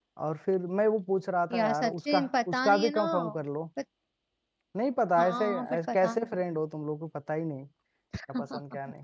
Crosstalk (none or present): present